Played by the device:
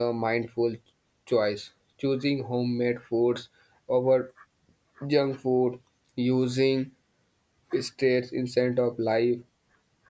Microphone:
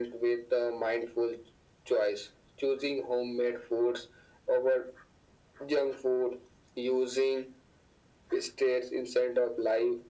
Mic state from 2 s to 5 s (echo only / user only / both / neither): echo only